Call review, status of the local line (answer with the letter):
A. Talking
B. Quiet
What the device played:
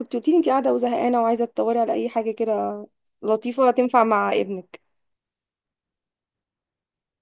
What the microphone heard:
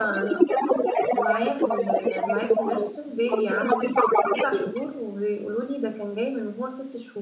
A